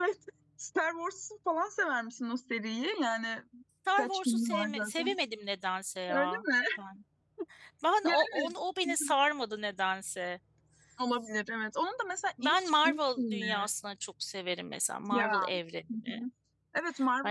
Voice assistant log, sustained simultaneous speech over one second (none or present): present